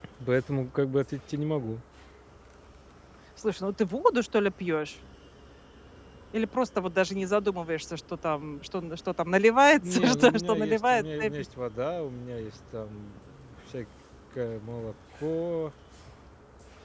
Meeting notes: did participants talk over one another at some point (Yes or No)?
Yes